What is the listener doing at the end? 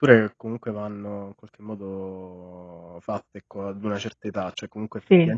listening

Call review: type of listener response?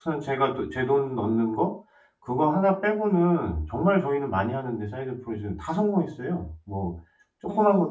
listening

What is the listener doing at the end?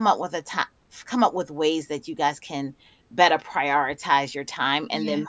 listening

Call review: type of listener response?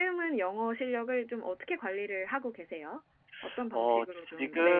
taking over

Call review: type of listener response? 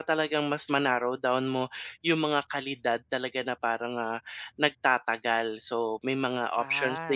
listening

